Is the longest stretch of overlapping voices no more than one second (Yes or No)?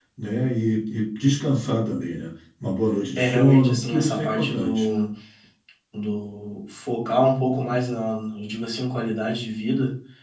No